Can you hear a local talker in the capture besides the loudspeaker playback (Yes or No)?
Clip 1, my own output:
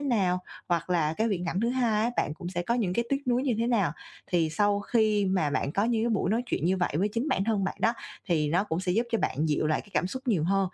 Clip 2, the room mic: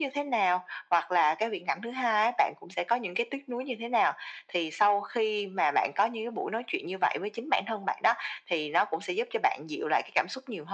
No